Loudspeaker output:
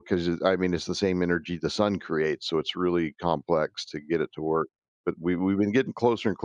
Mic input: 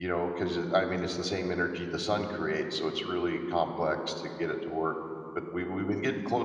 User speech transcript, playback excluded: none

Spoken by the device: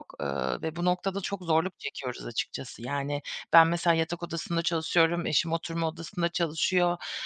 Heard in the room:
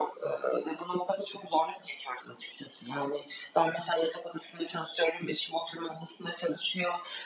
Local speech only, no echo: none

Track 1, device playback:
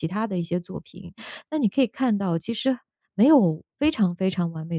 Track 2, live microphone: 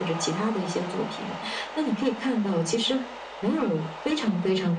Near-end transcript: none

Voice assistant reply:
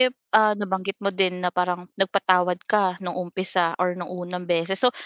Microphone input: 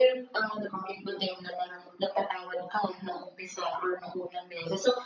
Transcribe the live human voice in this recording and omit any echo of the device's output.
none

